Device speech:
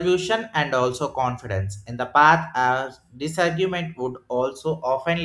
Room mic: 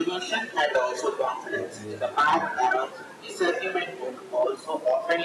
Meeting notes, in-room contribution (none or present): present